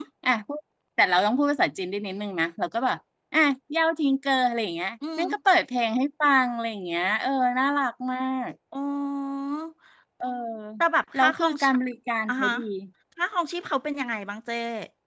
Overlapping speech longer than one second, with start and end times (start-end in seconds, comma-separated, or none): none